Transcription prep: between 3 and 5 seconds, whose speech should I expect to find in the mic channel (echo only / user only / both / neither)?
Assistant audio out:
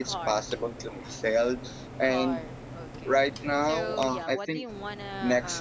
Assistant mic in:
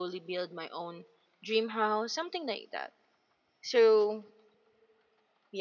user only